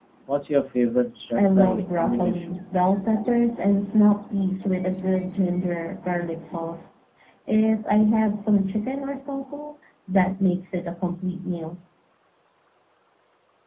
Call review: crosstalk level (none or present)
present